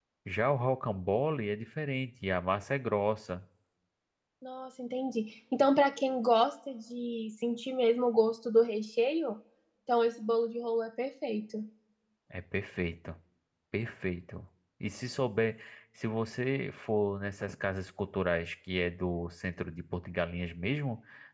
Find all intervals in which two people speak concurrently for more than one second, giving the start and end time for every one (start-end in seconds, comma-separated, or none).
none